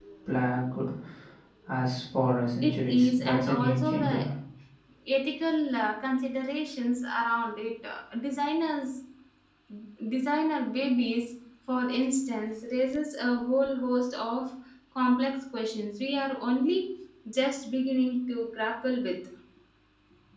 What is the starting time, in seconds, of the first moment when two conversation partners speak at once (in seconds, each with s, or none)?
2.6 s